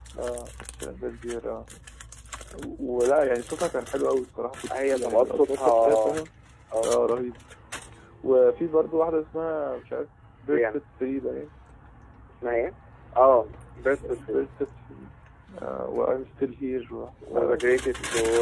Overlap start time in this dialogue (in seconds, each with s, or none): 4.9 s